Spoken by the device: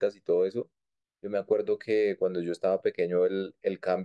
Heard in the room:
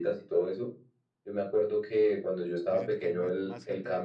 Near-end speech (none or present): present